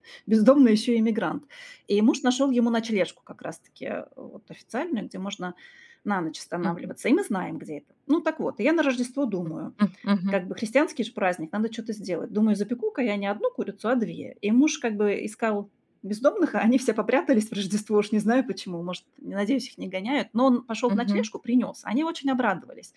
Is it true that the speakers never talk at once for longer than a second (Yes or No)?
Yes